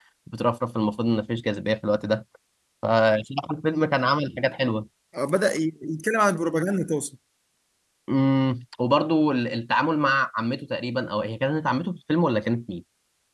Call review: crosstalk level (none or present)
none